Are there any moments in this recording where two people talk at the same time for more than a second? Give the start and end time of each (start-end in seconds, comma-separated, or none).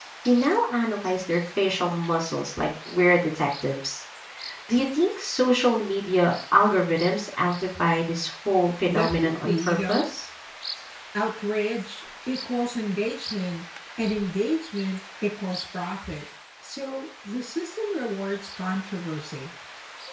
8.9-10.1